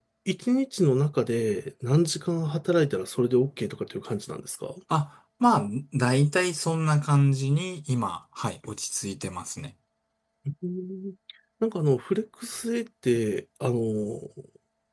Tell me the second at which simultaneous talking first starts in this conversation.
none

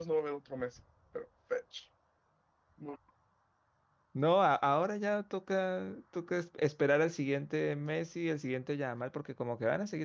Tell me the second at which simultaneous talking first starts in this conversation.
none

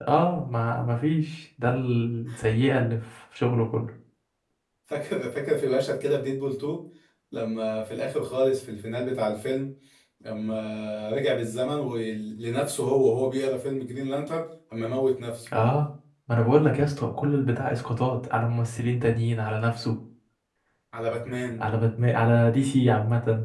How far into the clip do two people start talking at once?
none

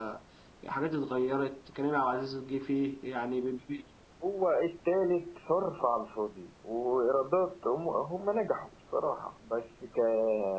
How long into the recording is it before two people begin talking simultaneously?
none

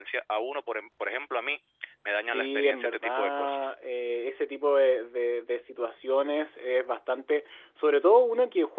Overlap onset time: 2.2 s

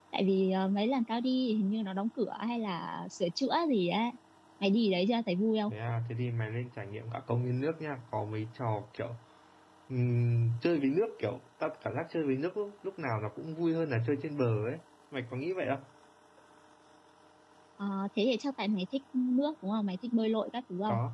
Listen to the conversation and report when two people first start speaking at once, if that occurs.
none

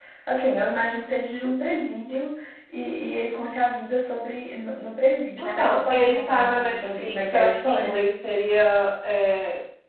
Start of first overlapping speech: 5.4 s

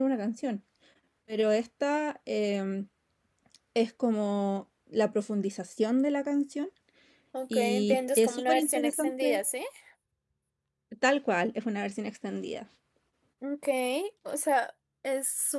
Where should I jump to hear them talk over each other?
7.5 s

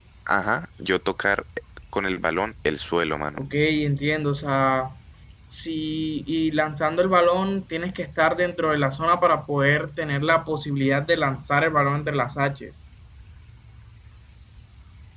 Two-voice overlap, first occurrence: none

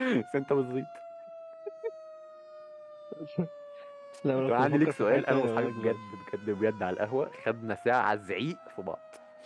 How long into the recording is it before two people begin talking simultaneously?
4.5 s

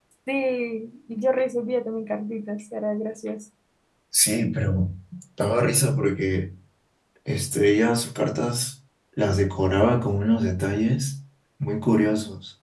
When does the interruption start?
none

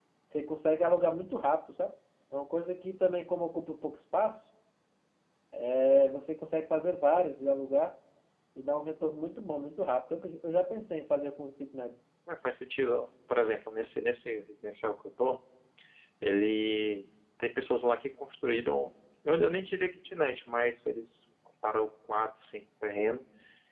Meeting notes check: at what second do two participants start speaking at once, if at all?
none

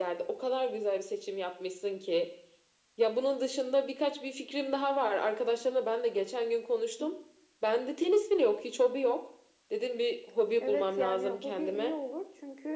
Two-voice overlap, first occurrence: 10.6 s

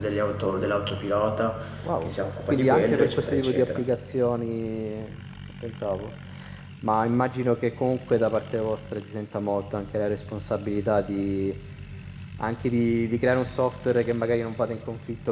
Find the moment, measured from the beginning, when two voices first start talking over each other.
2.0 s

